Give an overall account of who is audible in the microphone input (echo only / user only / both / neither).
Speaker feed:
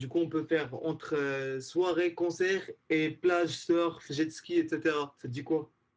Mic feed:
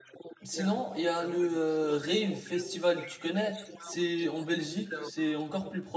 both